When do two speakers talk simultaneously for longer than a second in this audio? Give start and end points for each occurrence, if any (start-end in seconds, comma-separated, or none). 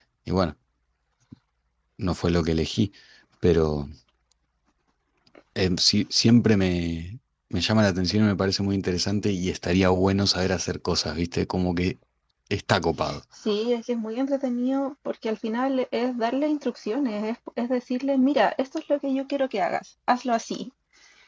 none